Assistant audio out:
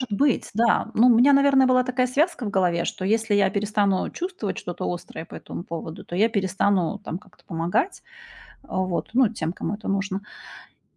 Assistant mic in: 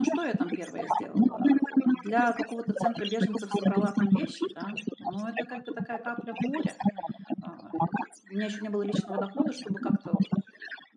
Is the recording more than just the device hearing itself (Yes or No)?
Yes